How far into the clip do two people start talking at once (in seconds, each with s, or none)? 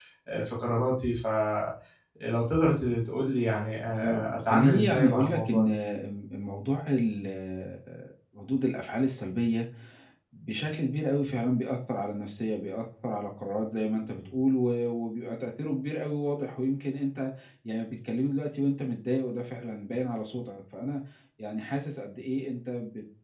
3.8 s